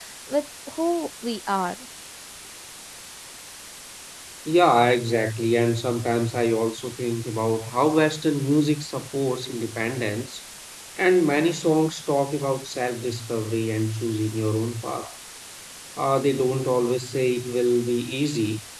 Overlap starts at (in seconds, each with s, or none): none